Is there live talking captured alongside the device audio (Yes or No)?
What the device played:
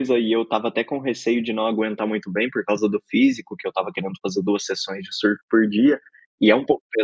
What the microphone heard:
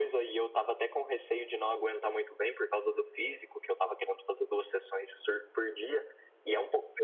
No